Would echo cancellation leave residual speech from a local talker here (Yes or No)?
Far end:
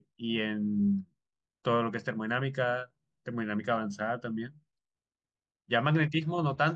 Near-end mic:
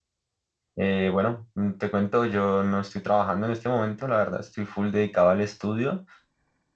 Yes